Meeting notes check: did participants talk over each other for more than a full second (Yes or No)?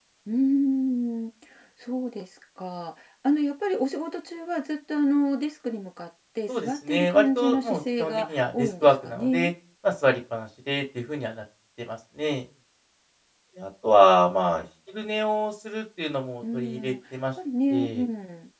Yes